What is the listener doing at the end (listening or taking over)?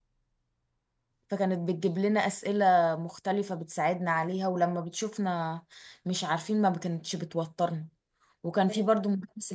listening